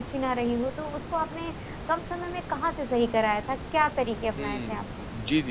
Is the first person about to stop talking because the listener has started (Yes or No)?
Yes